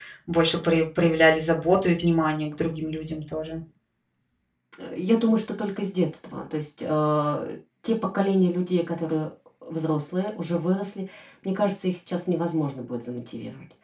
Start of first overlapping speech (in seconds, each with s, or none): none